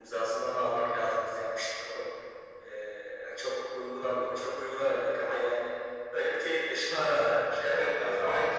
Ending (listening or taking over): taking over